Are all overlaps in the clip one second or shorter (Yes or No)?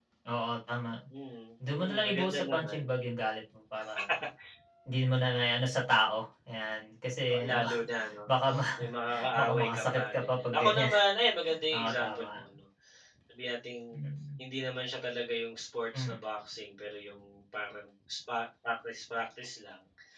No